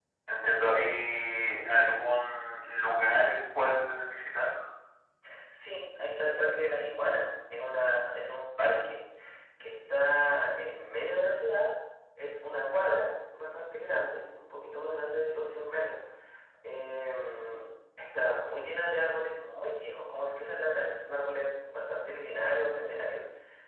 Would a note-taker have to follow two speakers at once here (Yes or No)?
No